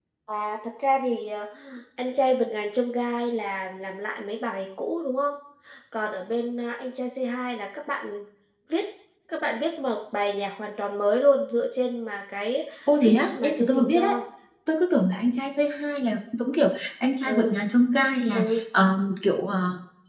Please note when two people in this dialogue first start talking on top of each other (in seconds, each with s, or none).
12.9 s